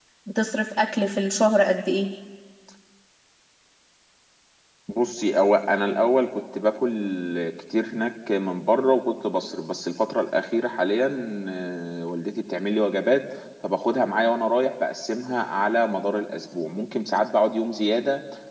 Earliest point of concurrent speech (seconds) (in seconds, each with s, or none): none